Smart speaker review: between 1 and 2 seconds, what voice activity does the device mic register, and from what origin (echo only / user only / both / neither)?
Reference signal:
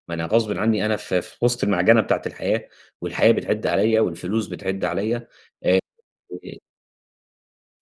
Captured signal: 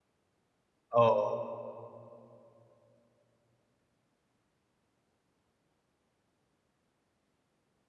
user only